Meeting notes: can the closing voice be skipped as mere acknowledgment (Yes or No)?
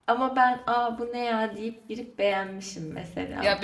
No